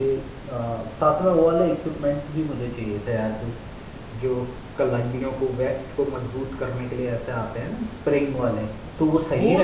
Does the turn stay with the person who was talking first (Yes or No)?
No